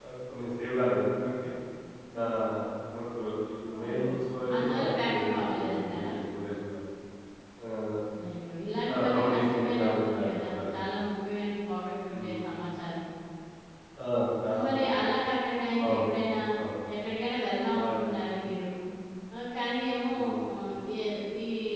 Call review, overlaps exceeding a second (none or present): present